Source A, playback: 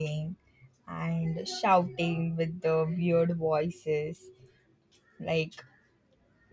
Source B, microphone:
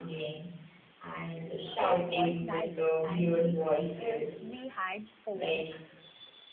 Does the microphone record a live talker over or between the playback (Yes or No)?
Yes